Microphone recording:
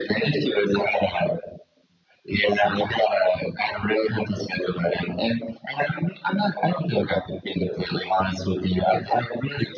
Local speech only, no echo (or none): none